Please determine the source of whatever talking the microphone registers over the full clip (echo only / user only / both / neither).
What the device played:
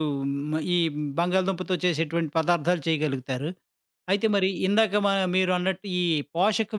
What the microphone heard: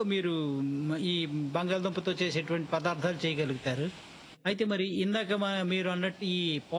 echo only